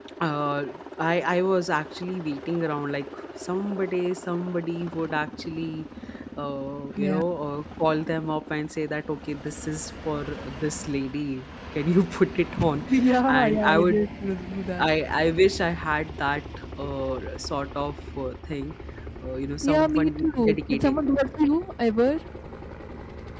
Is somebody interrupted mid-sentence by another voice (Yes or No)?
Yes